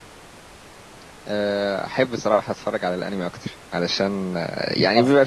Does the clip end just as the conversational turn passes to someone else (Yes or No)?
No